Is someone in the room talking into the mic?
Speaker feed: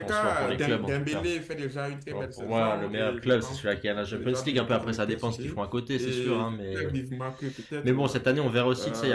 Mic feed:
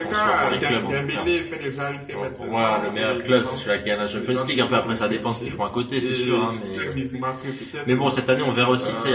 No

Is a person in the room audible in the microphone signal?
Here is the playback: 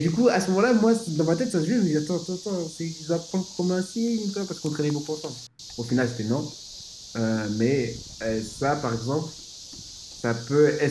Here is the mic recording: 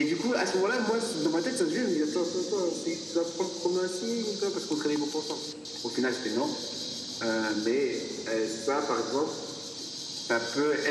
No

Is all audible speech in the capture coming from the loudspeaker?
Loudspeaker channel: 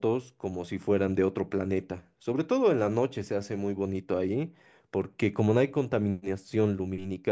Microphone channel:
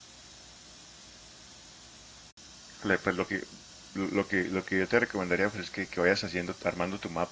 No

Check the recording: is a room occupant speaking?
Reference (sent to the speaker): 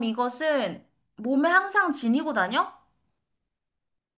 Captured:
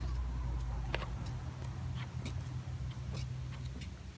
No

